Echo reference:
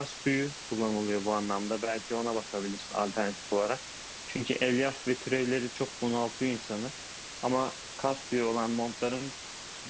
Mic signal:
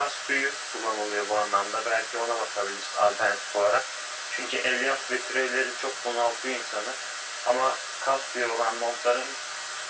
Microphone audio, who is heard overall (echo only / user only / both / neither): echo only